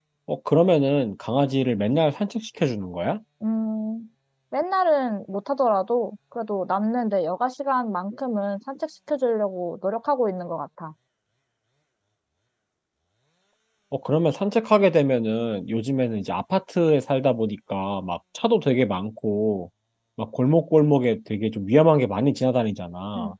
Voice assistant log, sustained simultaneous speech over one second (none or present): none